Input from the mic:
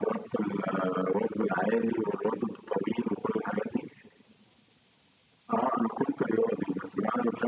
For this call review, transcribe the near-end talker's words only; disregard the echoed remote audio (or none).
none